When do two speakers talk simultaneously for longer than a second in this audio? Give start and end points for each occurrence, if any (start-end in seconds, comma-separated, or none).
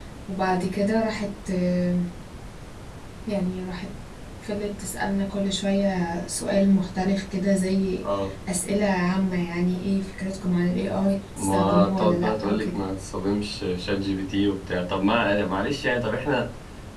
11.4-12.8